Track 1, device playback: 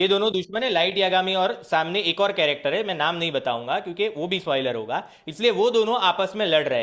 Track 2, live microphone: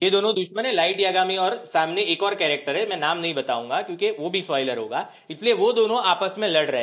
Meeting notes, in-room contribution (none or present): none